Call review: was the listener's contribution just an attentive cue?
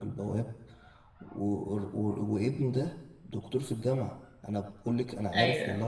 Yes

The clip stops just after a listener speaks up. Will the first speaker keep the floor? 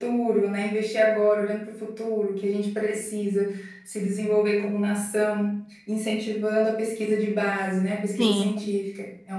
Yes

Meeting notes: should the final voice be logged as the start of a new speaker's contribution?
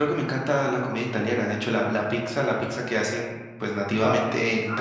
Yes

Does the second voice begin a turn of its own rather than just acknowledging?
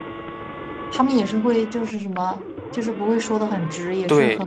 Yes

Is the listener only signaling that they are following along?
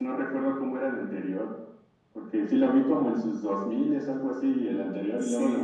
Yes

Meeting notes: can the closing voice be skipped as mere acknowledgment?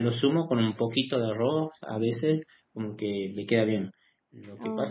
Yes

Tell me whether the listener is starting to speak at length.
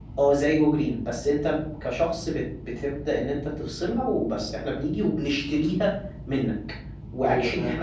No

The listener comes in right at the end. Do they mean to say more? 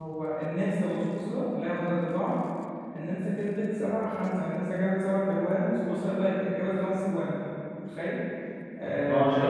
No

